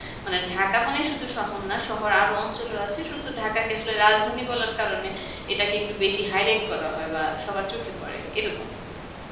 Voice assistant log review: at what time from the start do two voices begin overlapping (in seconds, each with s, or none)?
none